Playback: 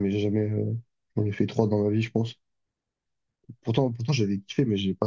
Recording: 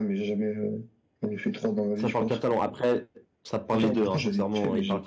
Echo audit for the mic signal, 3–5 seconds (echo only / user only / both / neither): both